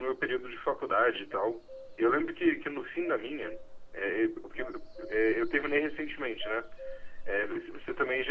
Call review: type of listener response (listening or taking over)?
listening